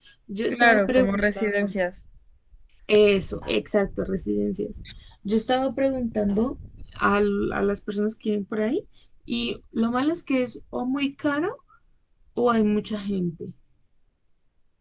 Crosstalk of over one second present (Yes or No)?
Yes